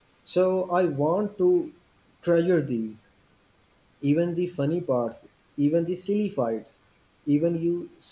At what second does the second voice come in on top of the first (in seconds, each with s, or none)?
none